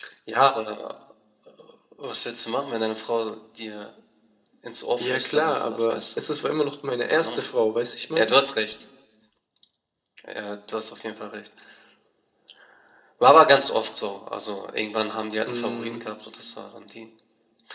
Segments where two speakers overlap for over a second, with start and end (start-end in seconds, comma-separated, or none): 5.0-6.2